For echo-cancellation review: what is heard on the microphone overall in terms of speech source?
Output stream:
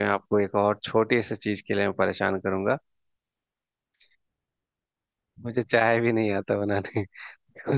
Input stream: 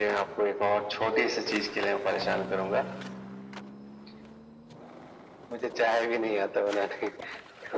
echo only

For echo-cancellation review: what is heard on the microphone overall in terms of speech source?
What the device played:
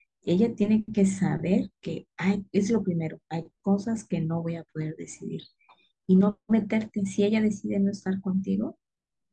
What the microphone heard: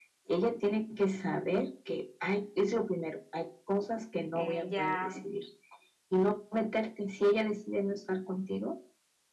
both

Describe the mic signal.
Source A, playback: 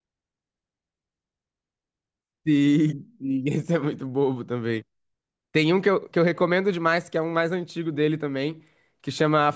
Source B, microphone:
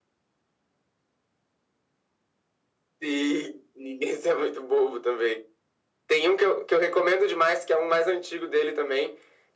echo only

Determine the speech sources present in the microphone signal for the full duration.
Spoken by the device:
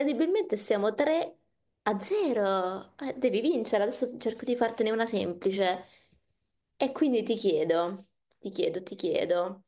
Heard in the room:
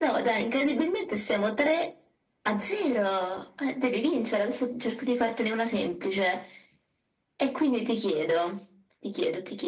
echo only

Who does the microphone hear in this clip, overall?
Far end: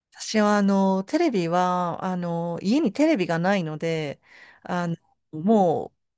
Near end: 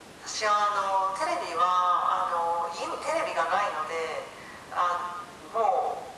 echo only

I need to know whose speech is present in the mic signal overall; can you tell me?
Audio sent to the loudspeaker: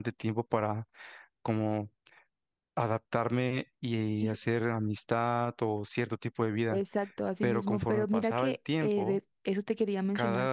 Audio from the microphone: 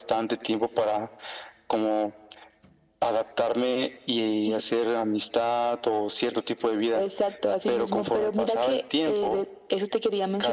echo only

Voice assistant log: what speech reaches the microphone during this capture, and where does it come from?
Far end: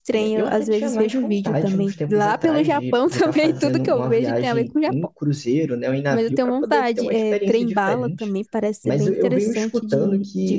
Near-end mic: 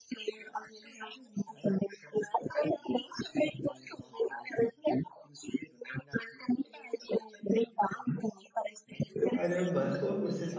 both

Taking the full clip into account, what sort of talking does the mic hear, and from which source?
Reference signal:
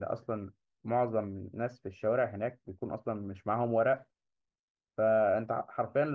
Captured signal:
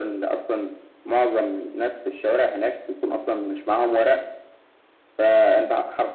echo only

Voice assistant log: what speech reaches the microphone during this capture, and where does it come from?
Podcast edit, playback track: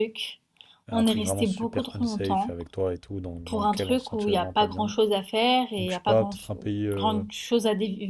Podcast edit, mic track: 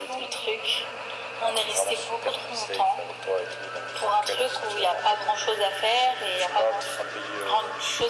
echo only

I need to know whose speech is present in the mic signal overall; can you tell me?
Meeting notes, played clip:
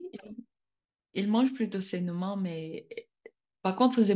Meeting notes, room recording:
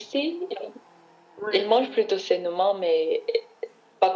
both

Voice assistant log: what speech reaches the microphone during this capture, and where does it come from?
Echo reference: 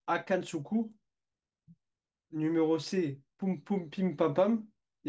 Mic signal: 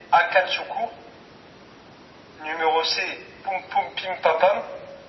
echo only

